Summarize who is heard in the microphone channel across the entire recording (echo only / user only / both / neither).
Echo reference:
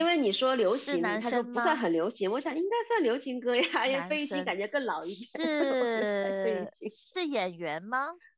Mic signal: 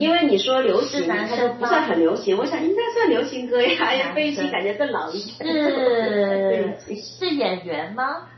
echo only